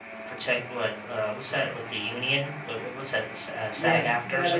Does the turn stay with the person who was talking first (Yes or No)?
No